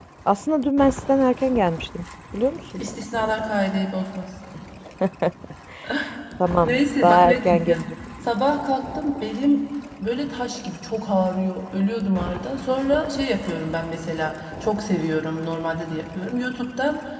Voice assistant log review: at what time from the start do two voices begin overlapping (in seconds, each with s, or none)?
6.6 s